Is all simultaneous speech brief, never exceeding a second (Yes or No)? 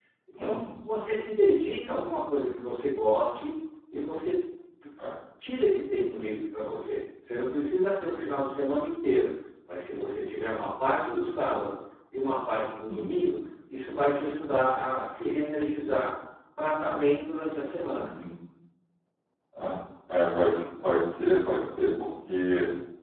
Yes